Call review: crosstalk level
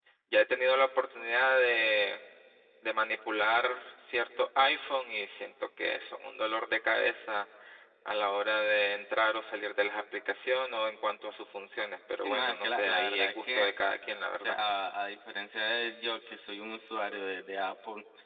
present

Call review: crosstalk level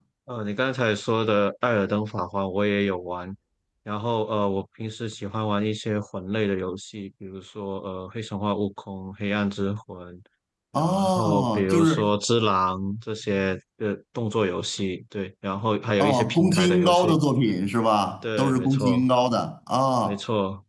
present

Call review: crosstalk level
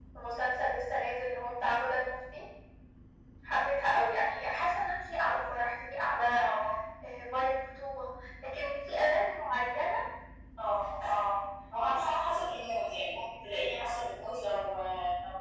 none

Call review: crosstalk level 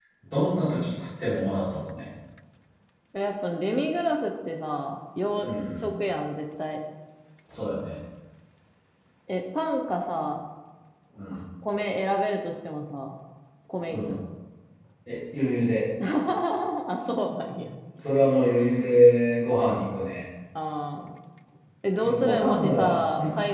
present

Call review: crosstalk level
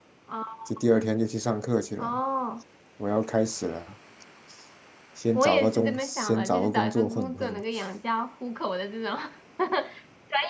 present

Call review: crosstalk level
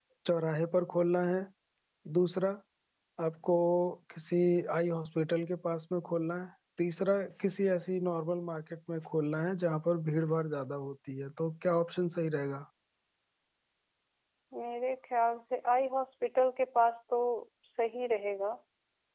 none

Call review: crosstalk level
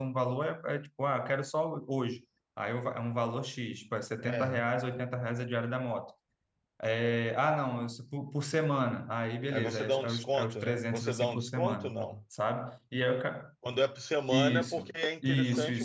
present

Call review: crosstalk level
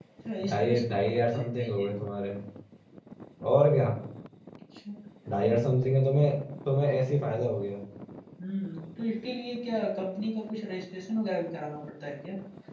present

